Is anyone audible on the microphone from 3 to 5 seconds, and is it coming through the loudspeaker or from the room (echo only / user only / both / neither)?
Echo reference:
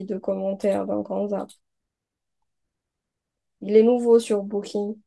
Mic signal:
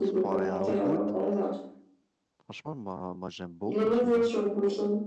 both